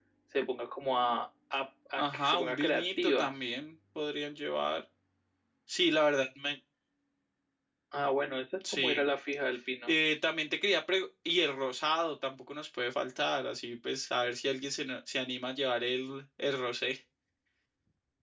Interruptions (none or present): present